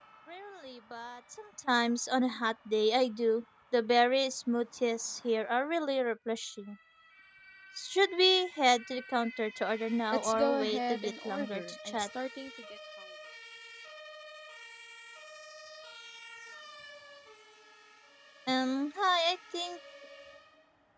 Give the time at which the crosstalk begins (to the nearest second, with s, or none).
10 s